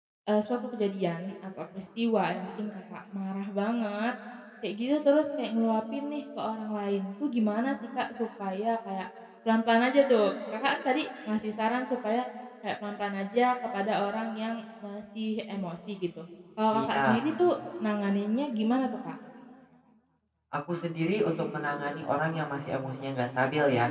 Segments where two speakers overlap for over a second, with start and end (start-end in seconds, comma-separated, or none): none